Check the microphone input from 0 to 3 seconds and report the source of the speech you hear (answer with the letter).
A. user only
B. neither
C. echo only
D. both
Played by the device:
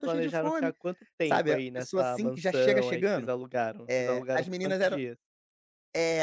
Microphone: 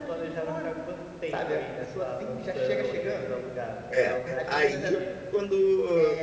C